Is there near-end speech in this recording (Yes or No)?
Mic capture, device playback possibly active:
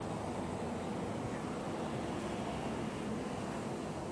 No